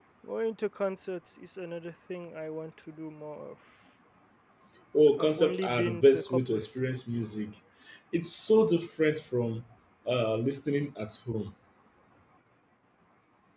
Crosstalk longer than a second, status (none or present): present